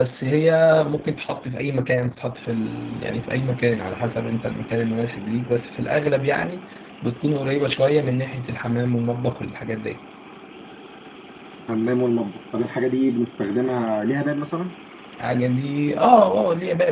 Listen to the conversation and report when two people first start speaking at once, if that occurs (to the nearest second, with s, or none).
none